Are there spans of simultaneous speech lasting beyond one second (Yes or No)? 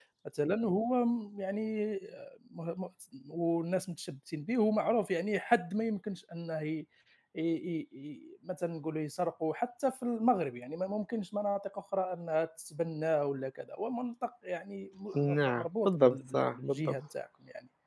Yes